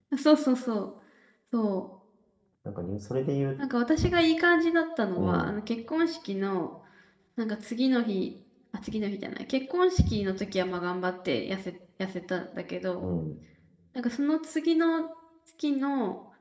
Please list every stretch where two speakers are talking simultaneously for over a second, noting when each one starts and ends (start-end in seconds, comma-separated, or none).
none